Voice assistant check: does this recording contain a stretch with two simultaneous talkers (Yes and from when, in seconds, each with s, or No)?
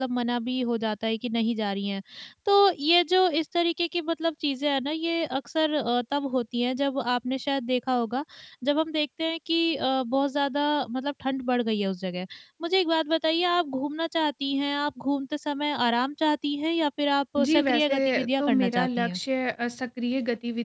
Yes, from 17.4 s